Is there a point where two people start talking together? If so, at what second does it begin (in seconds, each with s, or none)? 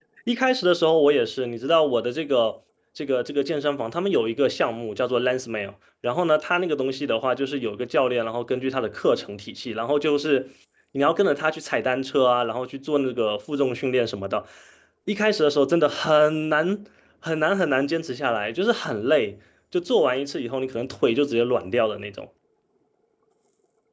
none